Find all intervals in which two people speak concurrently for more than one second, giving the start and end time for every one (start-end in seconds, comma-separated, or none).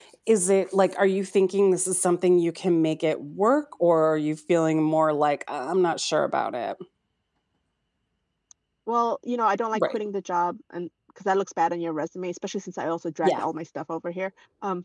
none